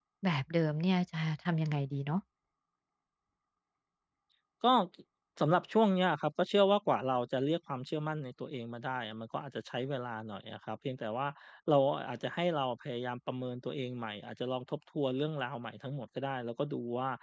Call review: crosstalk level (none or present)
none